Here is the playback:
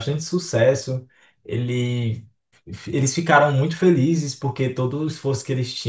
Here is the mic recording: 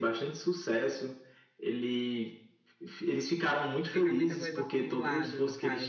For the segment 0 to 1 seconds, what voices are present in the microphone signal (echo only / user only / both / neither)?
echo only